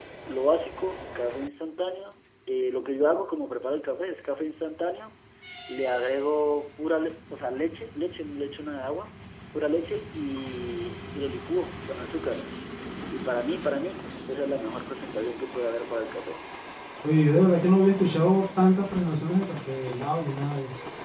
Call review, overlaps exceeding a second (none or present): none